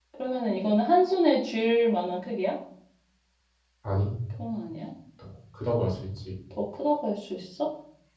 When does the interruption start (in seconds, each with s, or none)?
none